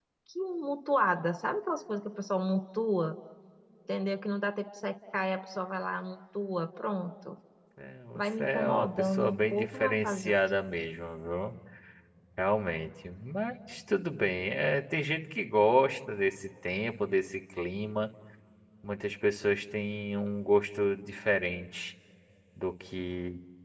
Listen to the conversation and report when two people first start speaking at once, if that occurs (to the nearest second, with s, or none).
8 s